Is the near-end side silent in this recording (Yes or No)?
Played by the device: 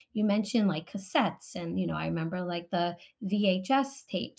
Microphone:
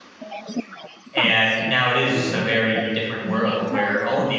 No